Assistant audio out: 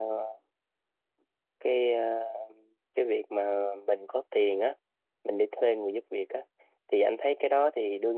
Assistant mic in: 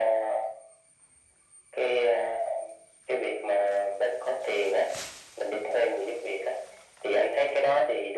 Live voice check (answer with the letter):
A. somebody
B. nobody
B